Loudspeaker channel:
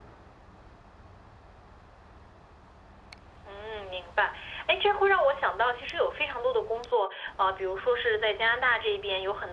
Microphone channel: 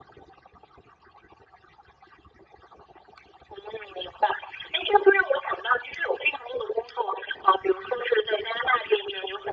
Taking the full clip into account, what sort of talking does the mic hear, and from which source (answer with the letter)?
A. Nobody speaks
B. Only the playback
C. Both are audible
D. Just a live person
B